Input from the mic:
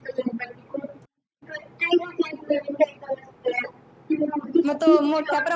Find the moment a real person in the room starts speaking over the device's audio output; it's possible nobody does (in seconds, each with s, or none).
4.7 s